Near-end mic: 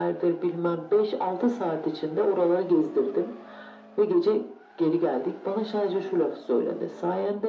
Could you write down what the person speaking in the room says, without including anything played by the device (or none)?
none